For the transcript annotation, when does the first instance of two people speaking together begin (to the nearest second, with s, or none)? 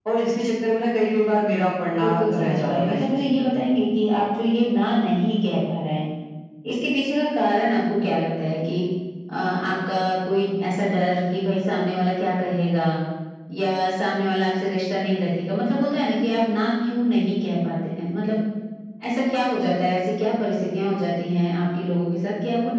2 s